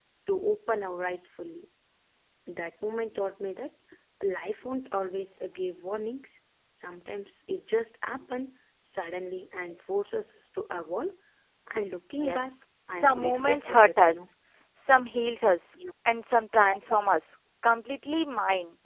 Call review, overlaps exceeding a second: present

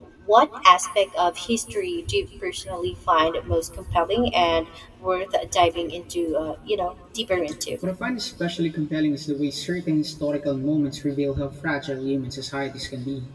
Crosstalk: none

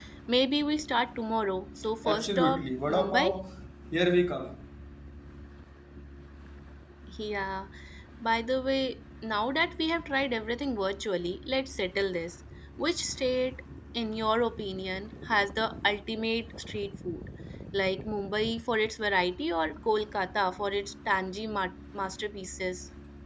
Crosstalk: present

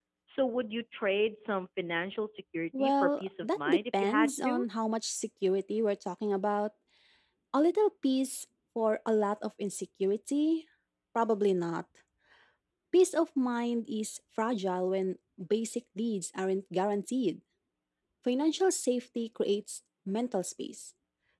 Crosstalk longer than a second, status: present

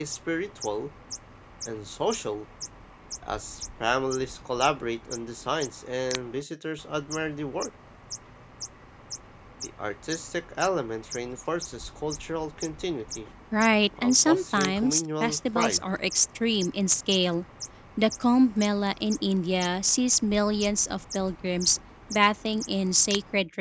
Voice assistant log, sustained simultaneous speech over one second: present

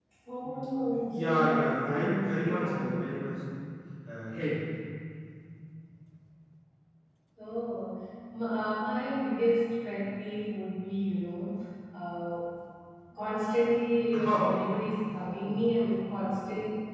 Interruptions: present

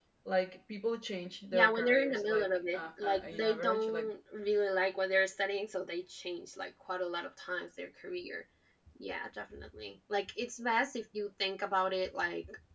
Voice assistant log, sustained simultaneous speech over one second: present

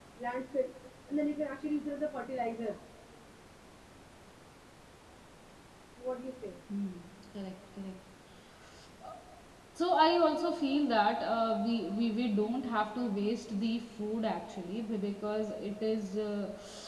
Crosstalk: none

